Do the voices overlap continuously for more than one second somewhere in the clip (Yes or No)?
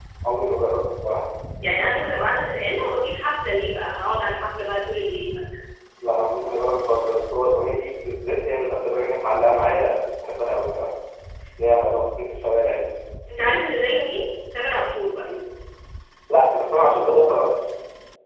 No